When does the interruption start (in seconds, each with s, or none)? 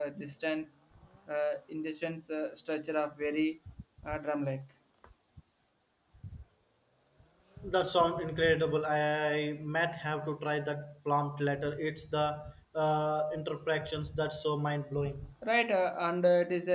none